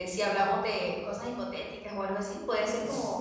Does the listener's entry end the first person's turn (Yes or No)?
Yes